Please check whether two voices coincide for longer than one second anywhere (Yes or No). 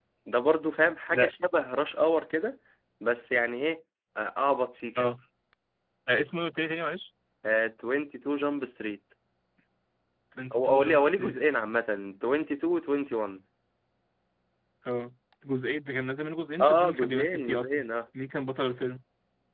Yes